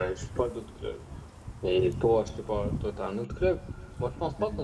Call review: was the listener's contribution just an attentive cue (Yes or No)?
Yes